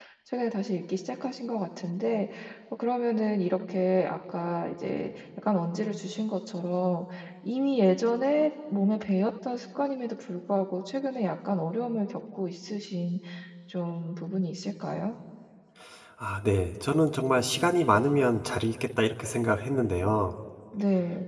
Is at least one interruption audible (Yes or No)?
No